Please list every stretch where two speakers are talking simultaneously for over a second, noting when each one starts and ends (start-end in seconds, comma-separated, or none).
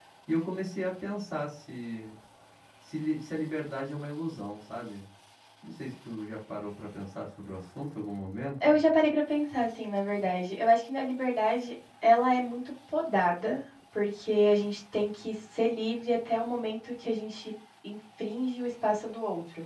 none